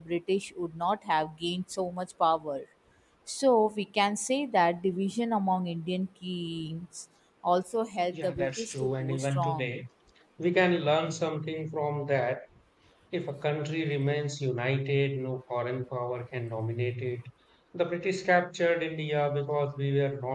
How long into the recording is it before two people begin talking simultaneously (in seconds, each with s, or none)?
8.1 s